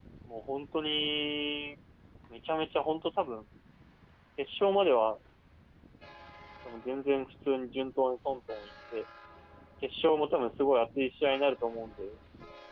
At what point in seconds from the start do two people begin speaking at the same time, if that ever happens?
none

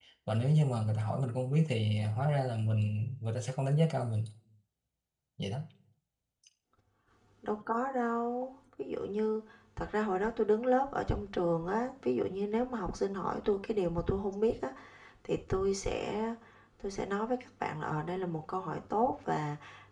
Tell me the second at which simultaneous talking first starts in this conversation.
none

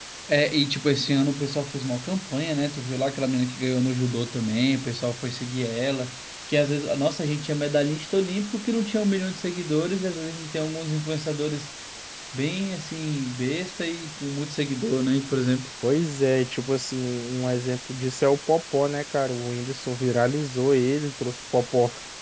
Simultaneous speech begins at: none

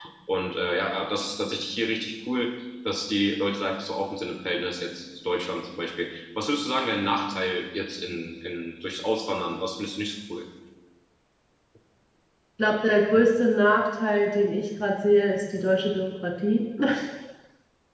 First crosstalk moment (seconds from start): none

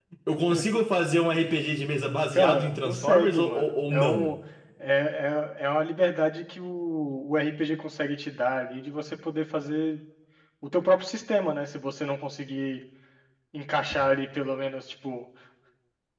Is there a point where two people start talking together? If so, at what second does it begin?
2 s

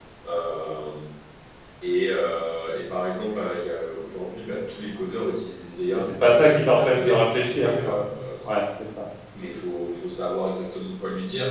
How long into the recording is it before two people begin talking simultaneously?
6 s

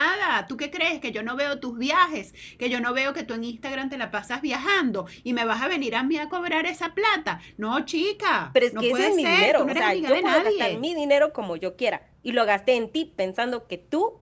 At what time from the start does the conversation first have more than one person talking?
9 s

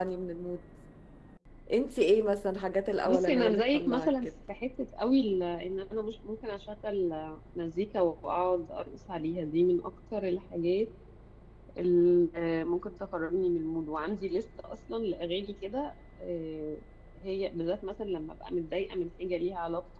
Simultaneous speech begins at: 3 s

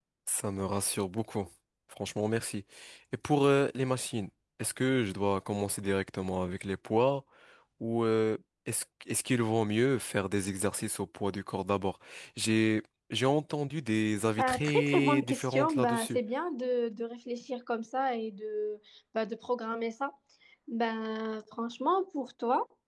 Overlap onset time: 14 s

